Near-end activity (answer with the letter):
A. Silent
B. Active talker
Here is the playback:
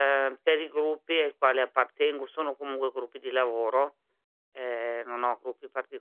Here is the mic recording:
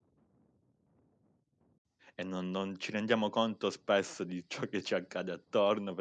B